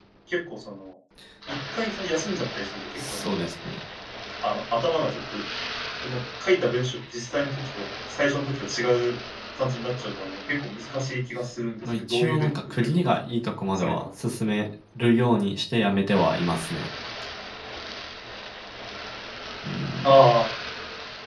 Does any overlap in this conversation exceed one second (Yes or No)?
Yes